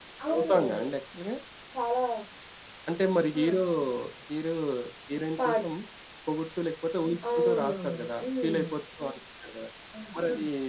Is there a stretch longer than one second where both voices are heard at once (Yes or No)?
Yes